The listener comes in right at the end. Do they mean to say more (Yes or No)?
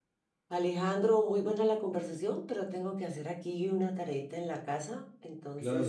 Yes